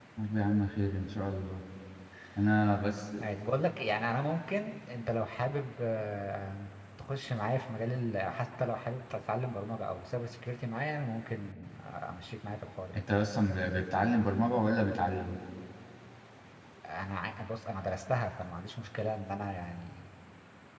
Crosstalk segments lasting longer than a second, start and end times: none

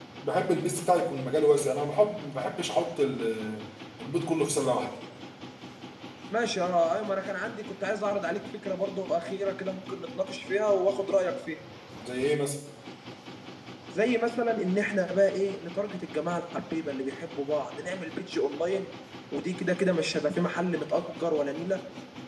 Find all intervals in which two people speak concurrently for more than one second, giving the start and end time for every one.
none

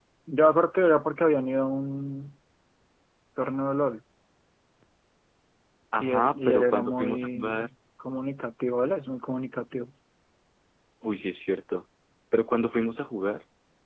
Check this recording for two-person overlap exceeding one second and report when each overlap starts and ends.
6.0-7.5

